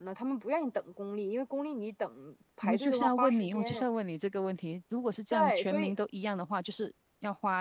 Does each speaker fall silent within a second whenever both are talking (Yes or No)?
No